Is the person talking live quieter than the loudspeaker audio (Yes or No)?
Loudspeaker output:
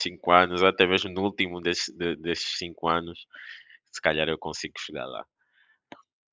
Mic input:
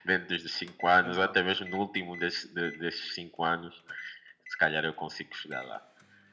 Yes